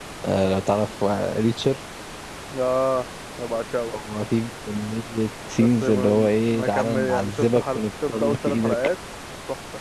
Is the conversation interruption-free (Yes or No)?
No